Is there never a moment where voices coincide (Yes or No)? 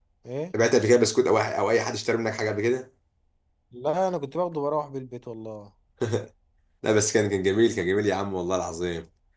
Yes